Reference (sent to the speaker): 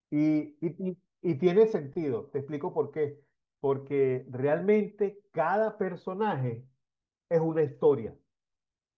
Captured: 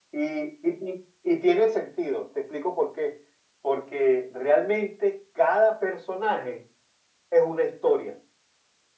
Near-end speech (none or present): none